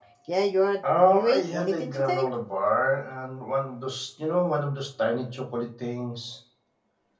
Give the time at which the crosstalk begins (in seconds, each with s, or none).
1.0 s